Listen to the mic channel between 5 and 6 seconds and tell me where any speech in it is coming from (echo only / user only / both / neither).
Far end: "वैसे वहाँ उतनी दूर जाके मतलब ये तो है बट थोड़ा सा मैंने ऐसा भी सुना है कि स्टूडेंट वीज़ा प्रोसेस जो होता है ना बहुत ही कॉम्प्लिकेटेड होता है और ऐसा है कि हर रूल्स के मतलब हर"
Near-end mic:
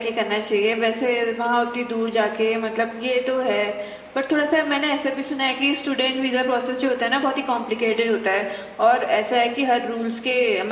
echo only